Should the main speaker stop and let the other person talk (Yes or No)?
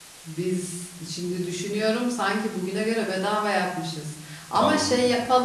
No